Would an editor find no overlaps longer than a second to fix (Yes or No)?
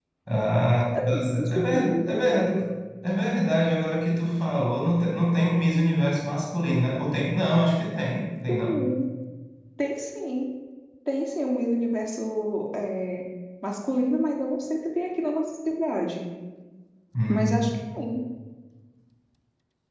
No